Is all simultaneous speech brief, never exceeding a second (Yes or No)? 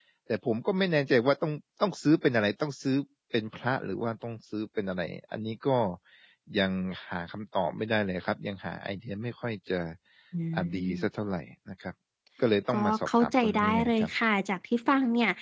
No